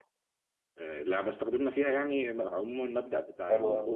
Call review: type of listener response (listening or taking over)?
listening